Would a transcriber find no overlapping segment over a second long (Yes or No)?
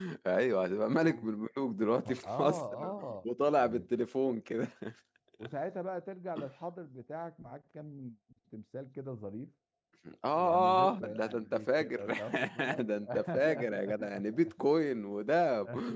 No